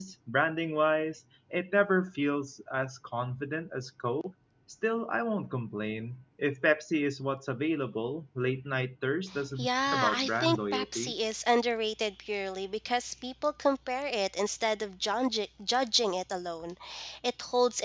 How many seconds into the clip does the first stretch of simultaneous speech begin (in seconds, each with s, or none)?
9.6 s